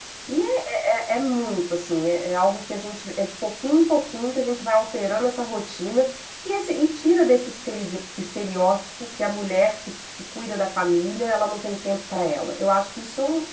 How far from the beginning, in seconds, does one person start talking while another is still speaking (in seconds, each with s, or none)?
none